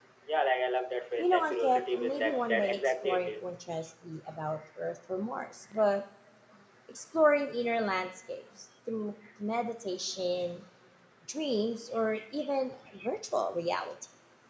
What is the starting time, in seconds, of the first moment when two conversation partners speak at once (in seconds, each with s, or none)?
1.2 s